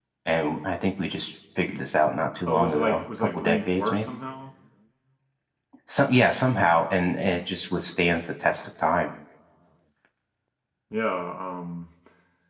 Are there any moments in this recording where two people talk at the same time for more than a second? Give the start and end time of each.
2.5-4.1

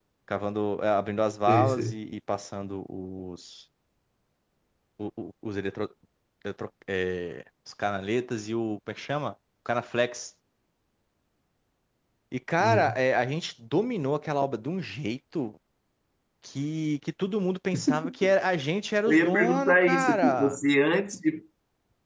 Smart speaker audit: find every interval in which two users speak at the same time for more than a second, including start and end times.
19.1-20.6

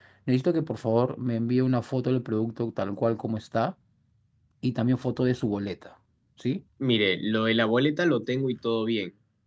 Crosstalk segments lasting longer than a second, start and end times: none

